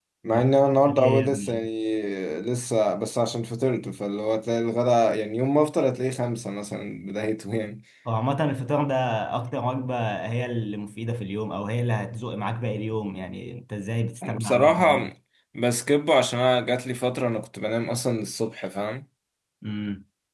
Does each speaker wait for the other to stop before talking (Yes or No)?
No